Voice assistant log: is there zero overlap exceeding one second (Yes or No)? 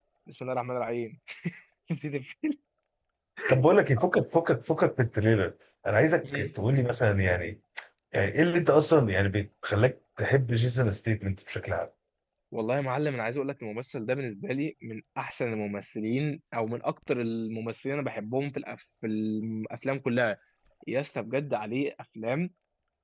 Yes